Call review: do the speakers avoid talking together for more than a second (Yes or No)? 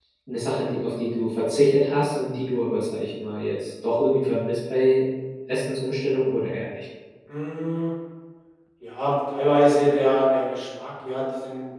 Yes